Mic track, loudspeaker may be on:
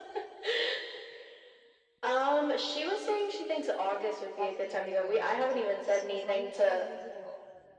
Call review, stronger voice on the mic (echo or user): echo